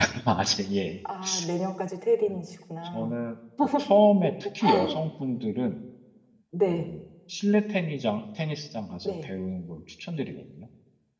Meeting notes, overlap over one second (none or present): none